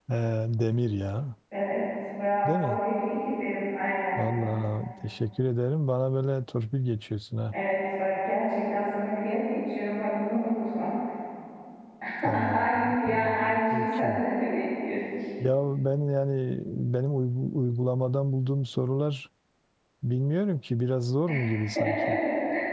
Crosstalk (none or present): present